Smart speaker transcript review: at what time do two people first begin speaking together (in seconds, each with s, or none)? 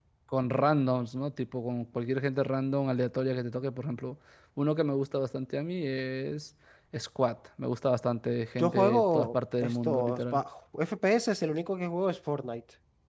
8.6 s